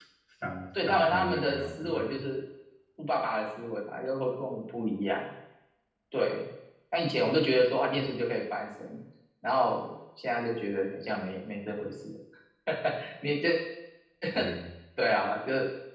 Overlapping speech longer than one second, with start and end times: 0.8-2.2

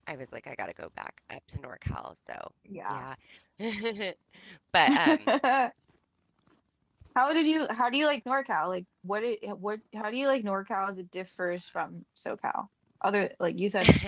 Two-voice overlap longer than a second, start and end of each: none

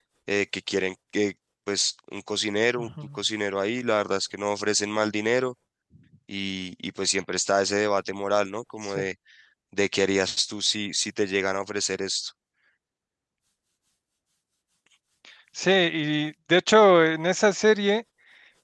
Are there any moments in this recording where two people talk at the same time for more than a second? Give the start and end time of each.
none

